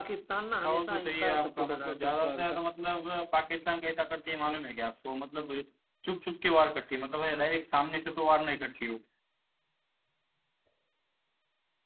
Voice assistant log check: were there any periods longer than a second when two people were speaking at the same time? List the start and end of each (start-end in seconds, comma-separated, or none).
0.6-2.6